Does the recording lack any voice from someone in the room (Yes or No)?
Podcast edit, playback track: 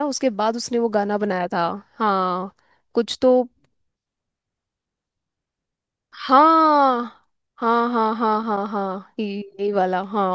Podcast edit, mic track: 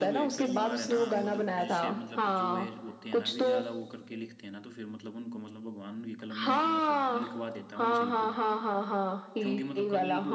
No